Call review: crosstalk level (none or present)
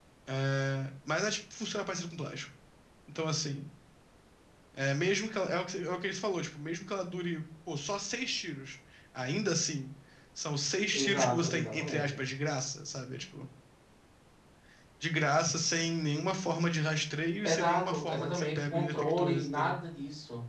present